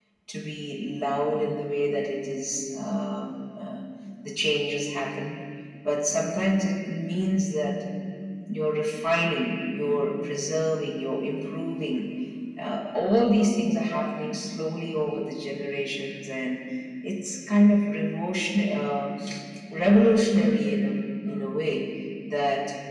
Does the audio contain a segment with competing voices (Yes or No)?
No